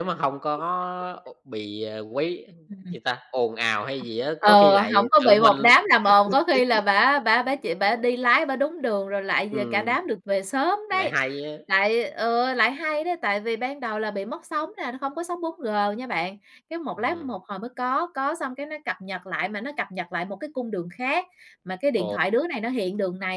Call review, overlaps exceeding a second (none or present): present